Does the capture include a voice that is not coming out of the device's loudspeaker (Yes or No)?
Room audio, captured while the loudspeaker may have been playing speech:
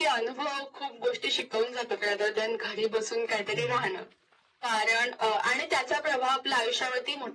Yes